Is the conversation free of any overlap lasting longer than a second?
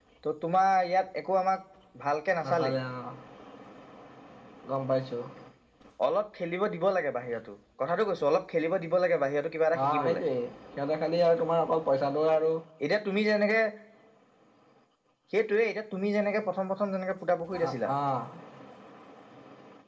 Yes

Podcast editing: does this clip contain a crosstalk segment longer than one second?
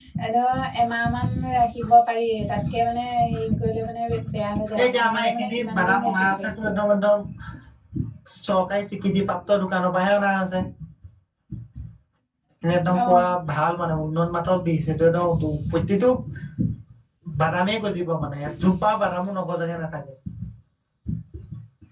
Yes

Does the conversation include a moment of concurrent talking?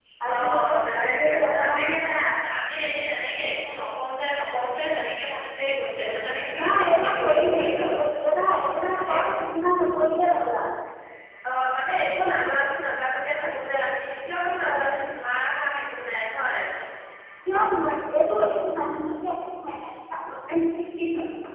Yes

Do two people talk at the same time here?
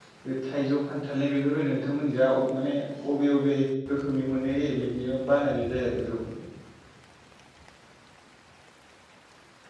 No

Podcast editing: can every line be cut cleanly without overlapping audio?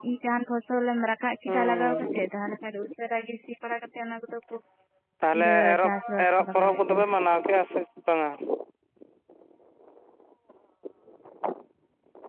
No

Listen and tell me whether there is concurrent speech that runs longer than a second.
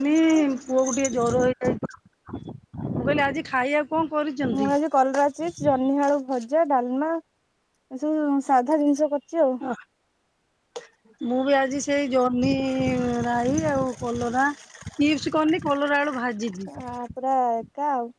No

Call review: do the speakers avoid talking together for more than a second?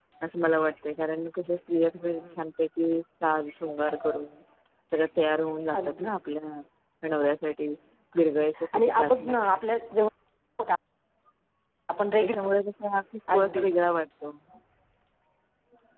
No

